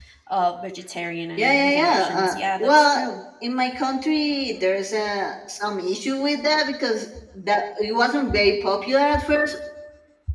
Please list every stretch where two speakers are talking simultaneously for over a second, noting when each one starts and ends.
1.4-3.0

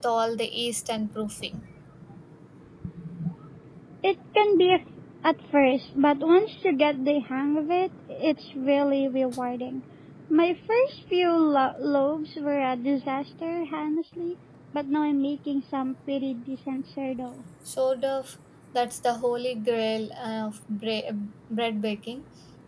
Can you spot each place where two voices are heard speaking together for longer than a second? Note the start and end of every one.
none

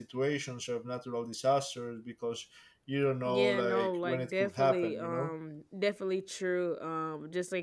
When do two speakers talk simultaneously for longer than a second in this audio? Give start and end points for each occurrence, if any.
3.3-5.3

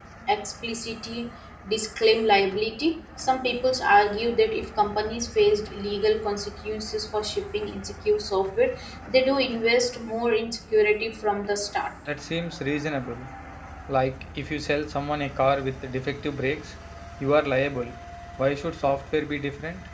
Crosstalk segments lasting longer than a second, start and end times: none

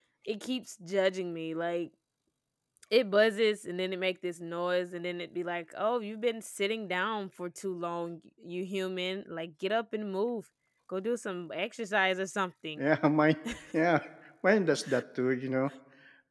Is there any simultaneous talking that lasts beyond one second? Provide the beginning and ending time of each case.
none

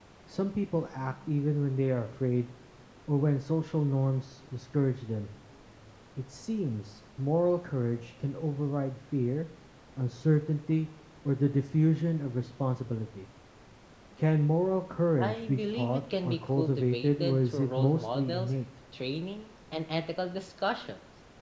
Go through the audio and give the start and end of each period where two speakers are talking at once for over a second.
15.2-18.5

